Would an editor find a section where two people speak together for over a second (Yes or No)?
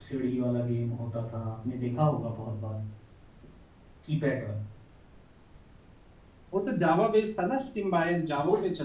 No